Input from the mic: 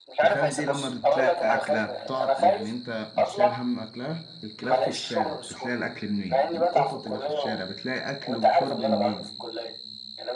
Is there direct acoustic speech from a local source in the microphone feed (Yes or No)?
Yes